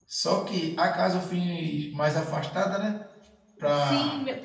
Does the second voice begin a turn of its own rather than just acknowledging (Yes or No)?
Yes